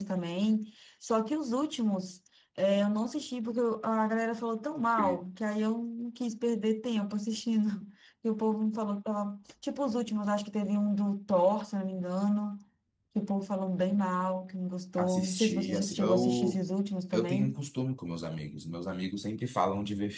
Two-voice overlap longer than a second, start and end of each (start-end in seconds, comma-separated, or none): 15.0-16.6